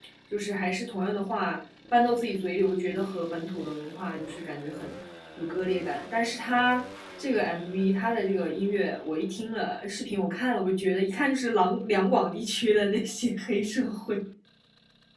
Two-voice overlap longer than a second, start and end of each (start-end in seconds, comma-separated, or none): none